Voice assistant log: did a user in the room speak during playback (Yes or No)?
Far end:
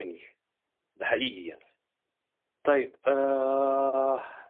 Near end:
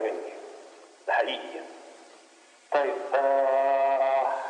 No